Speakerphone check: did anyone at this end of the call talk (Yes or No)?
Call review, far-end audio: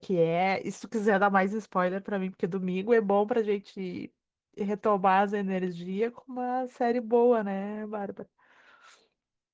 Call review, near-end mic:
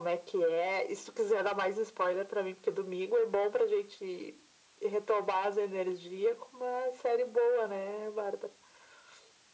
No